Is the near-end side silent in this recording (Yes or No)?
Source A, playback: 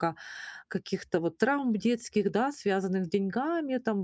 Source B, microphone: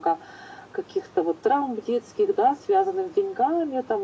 Yes